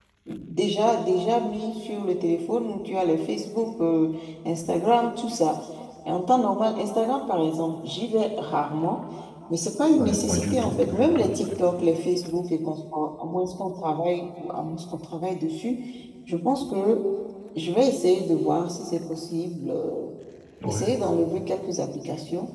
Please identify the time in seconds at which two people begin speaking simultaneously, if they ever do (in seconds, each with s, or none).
9.9 s